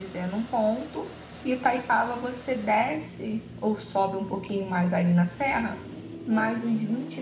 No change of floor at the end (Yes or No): Yes